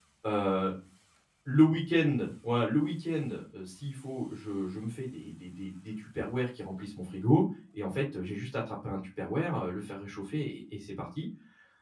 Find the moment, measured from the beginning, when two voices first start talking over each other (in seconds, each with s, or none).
none